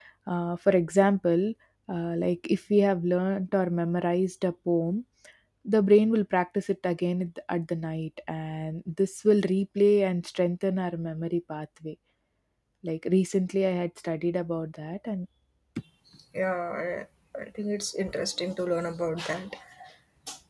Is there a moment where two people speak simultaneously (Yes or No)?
No